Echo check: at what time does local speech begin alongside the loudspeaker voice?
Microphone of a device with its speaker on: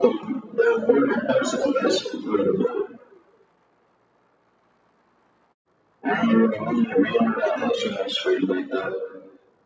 none

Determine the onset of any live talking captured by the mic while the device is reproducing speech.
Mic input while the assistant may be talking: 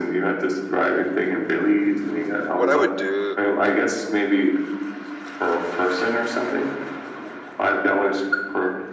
3 s

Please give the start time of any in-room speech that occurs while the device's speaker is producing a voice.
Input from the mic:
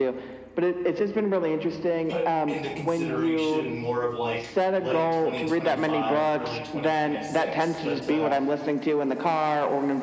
2 s

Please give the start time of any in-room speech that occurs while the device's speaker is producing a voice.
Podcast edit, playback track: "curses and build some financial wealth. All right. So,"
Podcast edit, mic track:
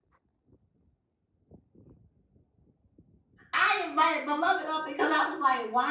4 s

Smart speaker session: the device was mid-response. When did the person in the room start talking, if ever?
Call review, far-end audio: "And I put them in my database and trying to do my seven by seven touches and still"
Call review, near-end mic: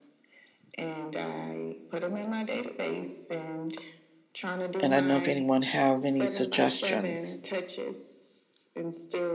5 s

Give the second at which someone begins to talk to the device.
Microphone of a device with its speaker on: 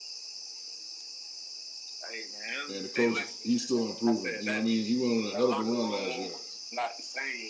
3 s

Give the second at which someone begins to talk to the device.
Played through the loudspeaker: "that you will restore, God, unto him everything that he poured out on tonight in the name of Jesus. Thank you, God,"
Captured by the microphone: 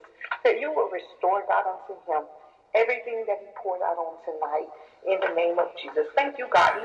none

